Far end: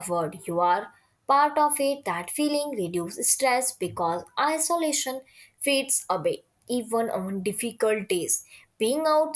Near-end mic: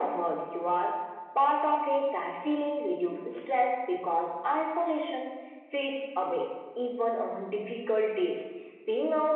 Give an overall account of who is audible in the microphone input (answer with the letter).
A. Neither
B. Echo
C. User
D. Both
B